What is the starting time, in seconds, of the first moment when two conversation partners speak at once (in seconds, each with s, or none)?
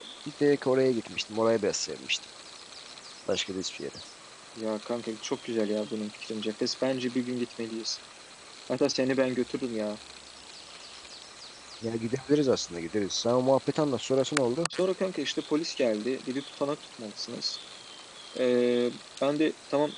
none